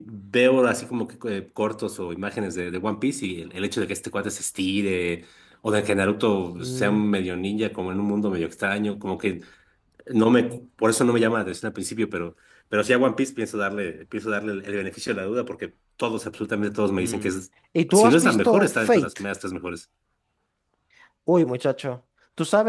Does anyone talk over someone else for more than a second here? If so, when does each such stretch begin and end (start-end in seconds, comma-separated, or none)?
17.9-19.1